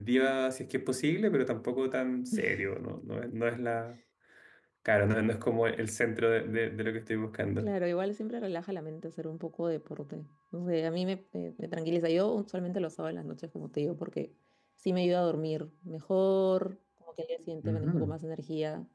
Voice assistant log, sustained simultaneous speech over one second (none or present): none